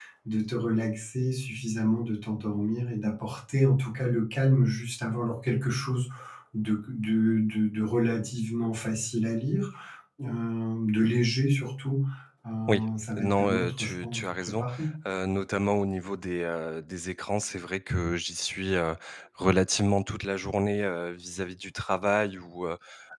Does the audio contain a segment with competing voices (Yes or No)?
Yes